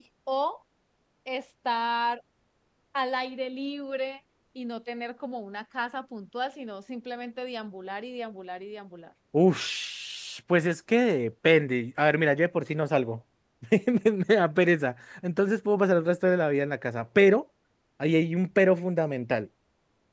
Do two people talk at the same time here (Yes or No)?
No